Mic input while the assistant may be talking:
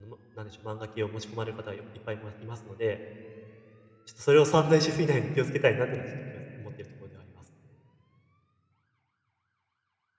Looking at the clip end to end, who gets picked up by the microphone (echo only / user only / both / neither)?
user only